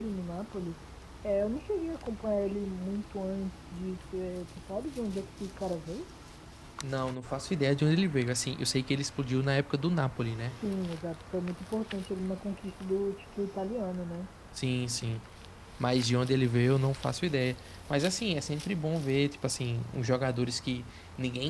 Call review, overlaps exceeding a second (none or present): none